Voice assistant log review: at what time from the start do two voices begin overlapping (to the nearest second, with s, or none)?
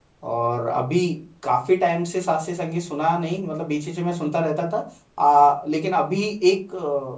none